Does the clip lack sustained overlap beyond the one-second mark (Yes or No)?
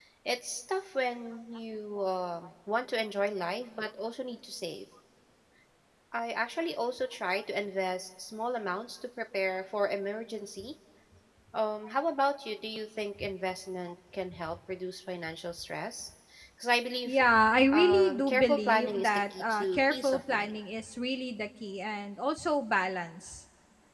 No